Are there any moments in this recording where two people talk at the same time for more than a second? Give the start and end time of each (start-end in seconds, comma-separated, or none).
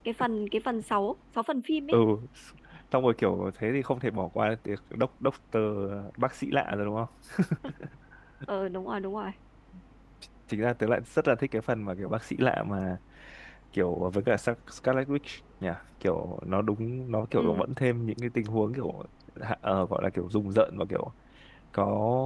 none